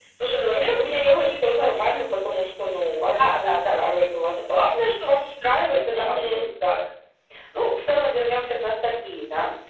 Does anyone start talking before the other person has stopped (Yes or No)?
Yes